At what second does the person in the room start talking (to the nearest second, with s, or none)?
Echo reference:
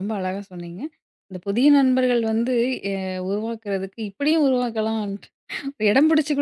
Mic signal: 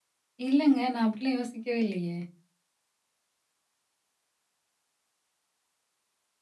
0 s